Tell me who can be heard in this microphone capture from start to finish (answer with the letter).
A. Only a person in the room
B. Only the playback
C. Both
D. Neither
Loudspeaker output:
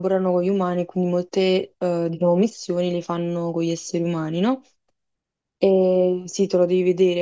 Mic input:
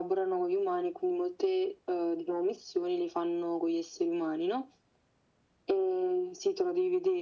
B